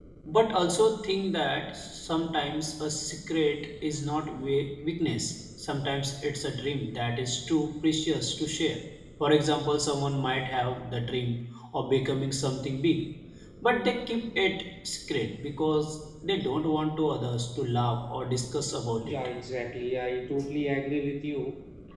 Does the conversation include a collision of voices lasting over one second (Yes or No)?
No